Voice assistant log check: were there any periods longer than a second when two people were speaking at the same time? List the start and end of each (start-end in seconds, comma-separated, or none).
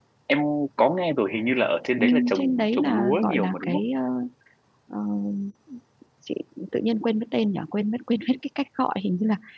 2.0-3.8